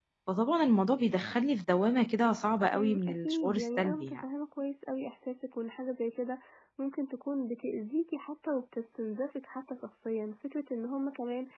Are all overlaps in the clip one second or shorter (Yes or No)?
No